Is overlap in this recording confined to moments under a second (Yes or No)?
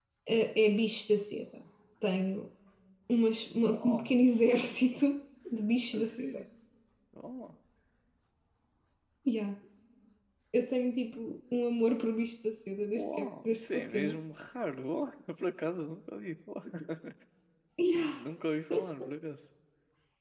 No